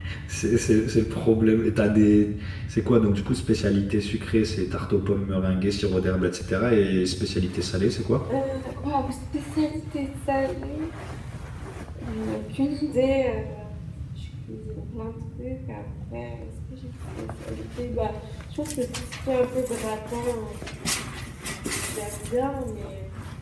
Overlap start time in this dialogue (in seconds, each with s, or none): none